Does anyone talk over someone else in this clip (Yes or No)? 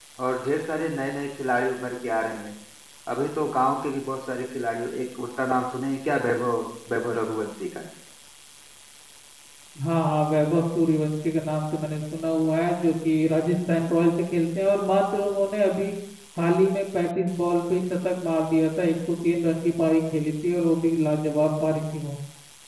No